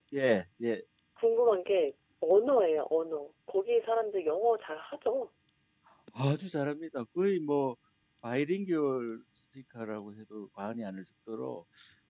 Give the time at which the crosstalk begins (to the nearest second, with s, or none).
none